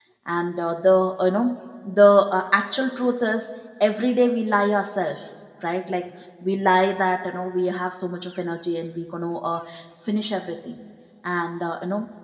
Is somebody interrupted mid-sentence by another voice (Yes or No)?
No